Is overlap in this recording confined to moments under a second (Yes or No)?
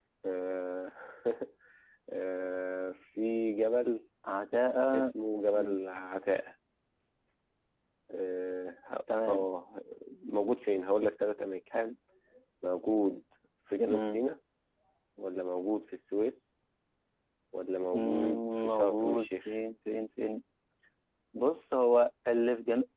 No